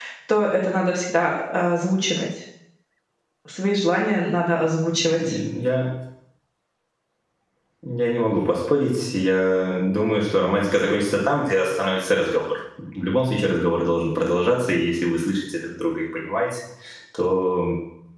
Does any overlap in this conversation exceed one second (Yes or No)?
No